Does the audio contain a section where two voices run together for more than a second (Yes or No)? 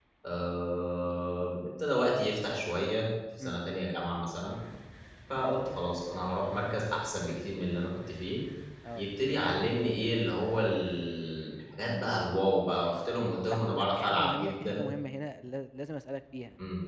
Yes